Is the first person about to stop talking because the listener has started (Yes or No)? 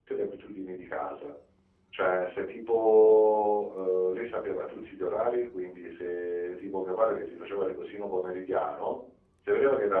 No